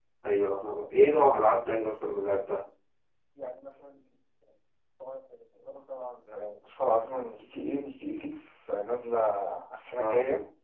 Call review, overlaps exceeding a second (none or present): none